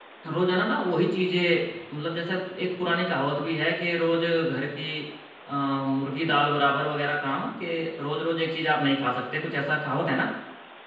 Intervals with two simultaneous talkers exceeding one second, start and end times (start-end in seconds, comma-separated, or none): none